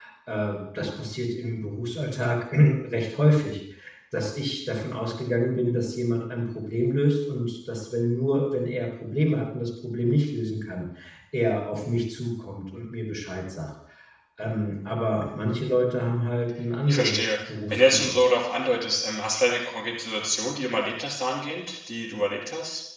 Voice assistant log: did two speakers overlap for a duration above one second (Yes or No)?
Yes